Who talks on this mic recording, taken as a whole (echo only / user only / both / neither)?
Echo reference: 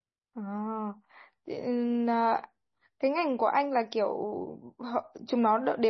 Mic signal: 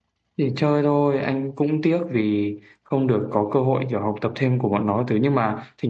user only